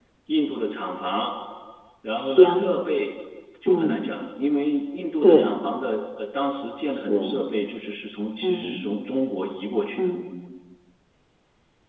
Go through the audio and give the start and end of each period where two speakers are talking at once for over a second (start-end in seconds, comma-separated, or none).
none